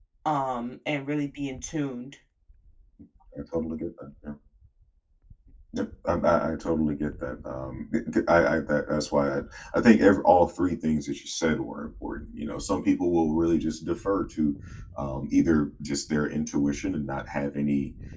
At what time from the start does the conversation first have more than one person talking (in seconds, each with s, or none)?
none